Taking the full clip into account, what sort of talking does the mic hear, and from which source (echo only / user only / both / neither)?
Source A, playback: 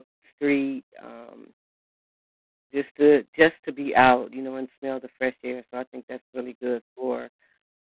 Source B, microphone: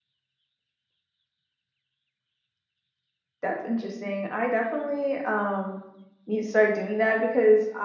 user only